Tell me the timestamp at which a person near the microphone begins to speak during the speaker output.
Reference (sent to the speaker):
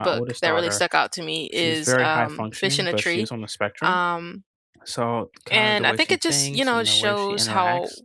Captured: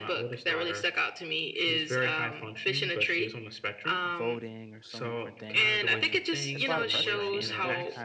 4 s

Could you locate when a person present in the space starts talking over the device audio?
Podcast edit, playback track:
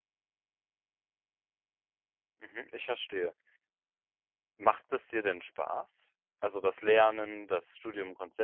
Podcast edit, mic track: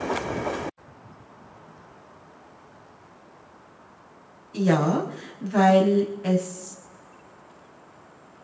5 s

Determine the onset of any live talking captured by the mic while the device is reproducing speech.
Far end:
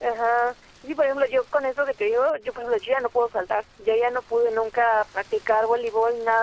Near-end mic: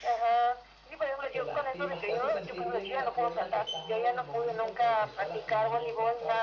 1 s

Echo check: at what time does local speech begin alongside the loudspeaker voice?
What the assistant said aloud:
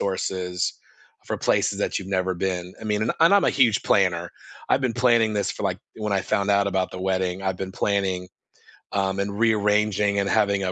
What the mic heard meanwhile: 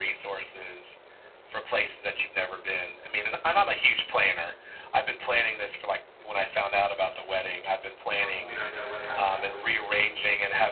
8 s

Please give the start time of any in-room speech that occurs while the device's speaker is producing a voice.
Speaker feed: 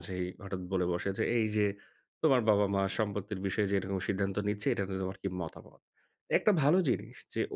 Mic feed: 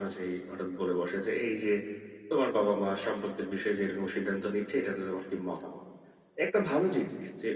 none

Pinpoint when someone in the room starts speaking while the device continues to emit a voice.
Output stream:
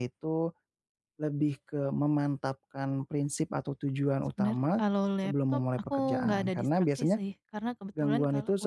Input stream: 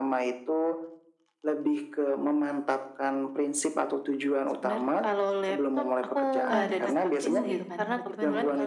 7 s

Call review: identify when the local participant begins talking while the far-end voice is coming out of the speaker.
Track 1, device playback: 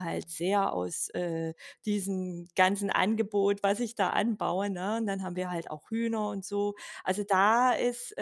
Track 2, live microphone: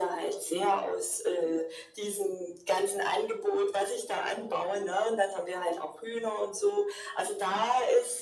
none

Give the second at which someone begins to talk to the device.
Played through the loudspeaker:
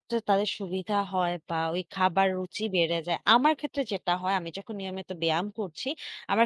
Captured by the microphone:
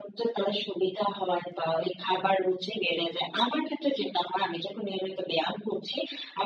none

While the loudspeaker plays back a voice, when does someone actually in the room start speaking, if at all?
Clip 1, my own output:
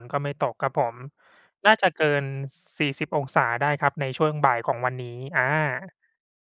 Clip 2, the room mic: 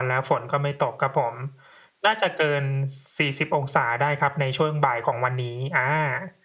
none

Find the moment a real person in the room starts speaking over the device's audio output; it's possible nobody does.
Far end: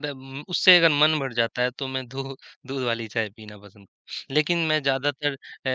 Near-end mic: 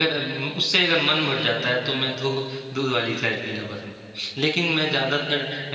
none

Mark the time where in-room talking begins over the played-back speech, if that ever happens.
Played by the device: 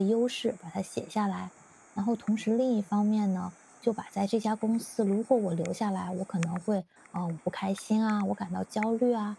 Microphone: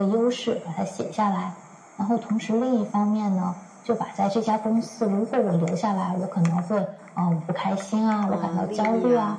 8 s

